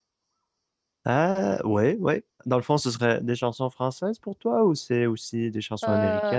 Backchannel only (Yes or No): No